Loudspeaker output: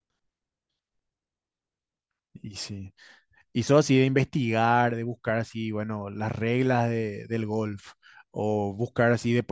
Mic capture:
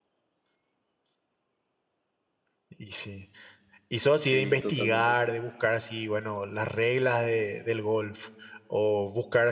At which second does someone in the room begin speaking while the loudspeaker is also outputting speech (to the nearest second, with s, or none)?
4 s